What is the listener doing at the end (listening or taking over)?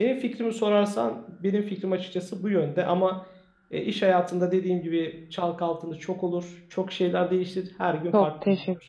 taking over